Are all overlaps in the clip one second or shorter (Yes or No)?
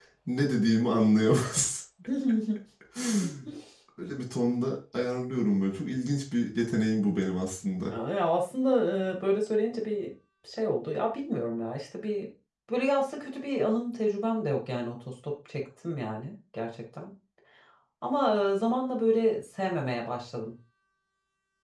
Yes